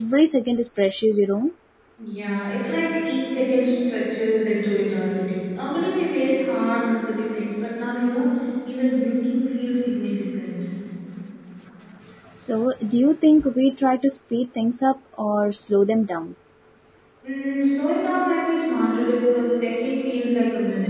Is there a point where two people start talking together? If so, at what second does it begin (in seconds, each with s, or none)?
none